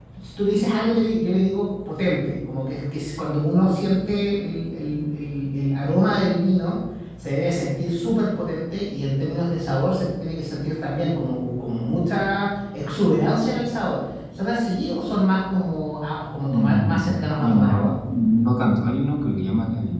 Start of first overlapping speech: 16.5 s

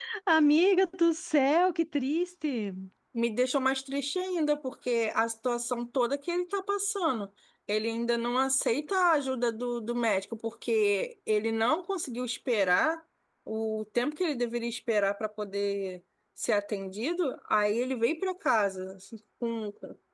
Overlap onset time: none

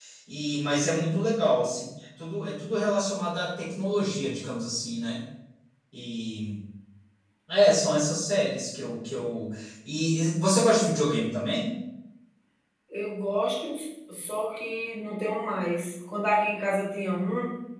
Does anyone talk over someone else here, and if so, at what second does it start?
none

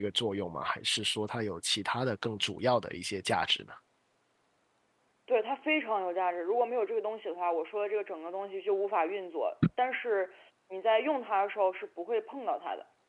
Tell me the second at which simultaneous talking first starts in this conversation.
none

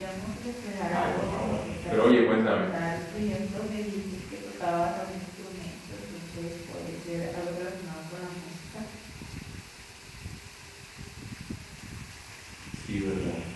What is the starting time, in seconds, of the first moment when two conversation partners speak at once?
0.9 s

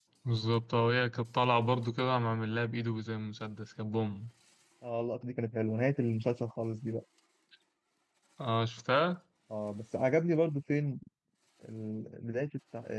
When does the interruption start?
none

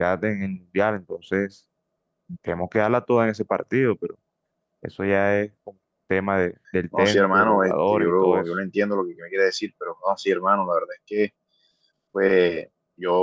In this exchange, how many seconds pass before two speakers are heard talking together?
6.9 s

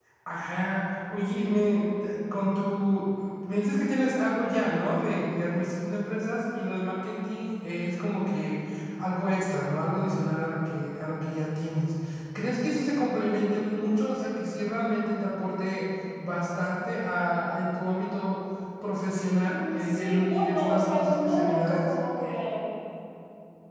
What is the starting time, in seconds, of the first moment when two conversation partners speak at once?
19.5 s

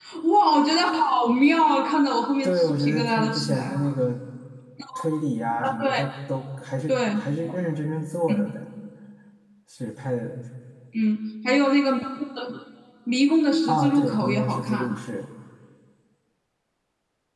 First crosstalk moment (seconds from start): 2.4 s

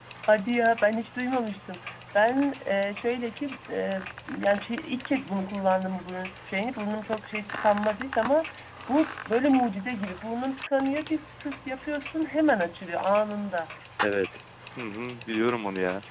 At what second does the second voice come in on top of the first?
none

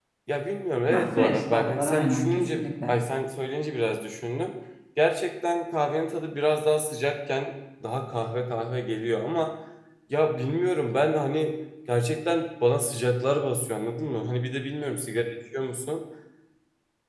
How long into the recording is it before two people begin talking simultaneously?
0.9 s

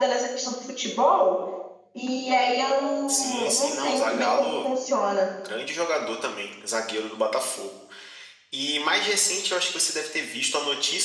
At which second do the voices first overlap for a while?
3.1 s

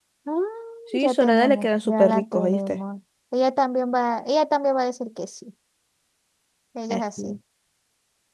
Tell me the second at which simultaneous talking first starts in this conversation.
1.0 s

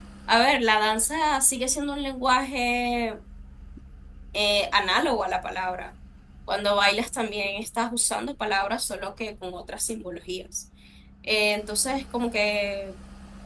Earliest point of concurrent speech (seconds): none

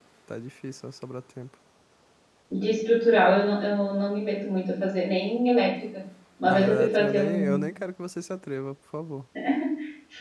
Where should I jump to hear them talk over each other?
6.4 s

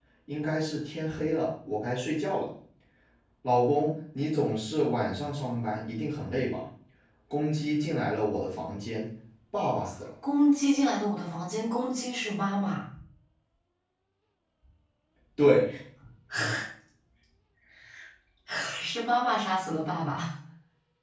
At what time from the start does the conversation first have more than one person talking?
none

